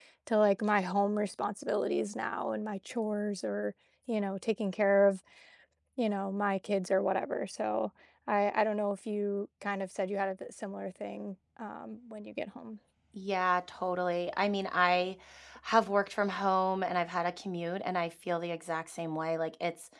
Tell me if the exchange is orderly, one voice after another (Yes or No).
Yes